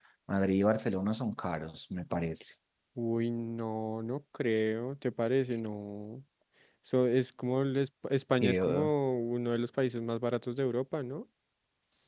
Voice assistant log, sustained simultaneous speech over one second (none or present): none